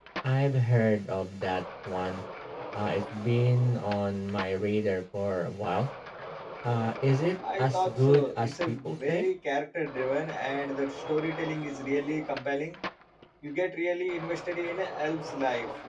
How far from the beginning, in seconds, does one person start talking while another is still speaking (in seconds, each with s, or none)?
7.4 s